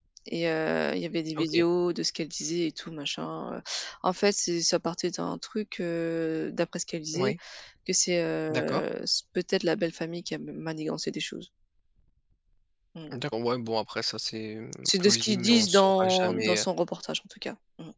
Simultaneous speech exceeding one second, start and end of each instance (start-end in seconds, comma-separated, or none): 14.8-16.6